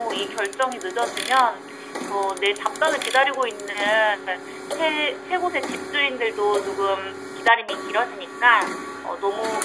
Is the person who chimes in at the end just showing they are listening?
Yes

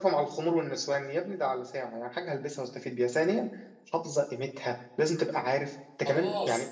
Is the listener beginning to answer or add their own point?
Yes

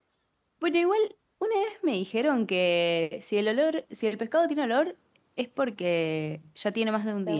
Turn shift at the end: Yes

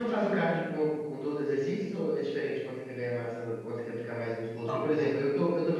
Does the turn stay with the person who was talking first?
Yes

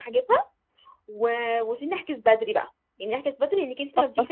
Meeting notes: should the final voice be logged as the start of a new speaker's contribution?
No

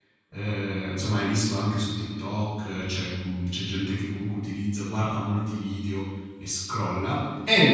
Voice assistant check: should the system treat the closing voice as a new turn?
No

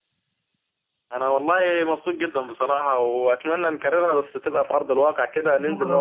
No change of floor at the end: No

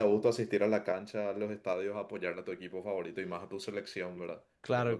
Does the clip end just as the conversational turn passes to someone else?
Yes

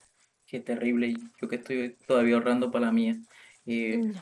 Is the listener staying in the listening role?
Yes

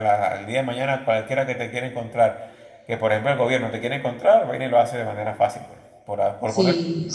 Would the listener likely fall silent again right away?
No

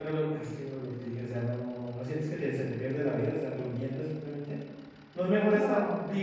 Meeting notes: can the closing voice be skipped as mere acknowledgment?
Yes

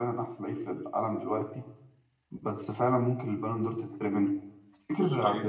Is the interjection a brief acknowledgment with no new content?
Yes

